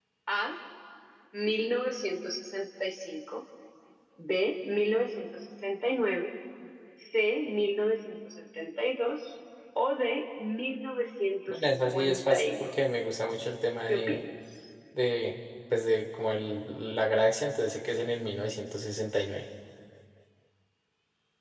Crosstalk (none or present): present